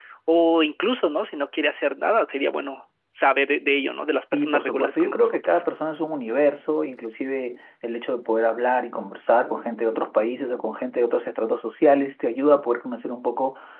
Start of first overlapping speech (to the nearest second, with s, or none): 4 s